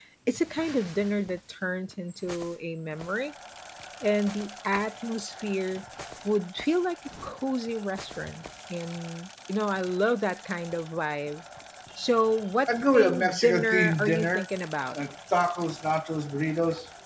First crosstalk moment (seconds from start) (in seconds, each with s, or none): 12.7 s